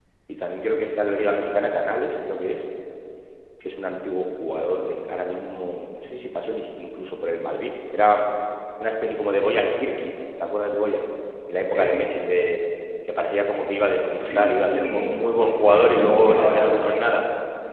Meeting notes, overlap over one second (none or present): present